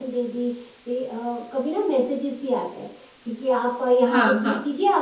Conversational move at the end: listening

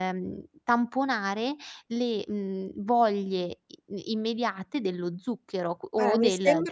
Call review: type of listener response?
taking over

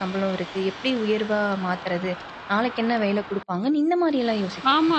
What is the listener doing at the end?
taking over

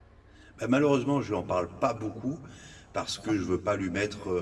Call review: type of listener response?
listening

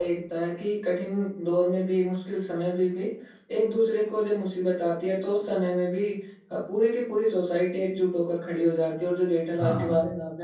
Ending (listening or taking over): listening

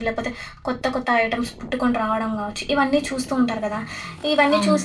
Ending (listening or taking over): listening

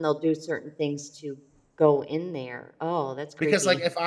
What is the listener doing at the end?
taking over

